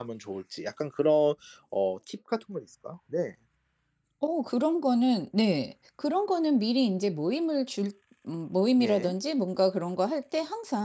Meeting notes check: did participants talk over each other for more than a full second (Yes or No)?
No